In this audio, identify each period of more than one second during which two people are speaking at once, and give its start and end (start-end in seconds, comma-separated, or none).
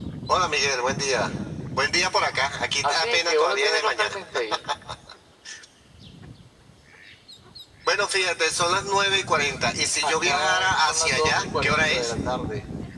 2.8-4.2, 10.0-12.1